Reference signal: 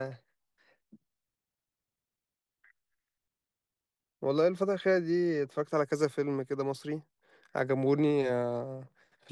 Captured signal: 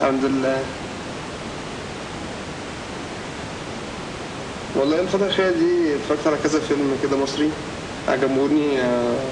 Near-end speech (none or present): none